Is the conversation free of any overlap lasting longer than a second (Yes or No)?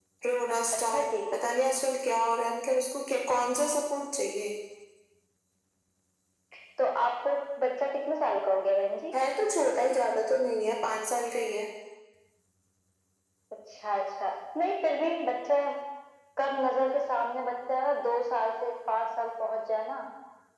Yes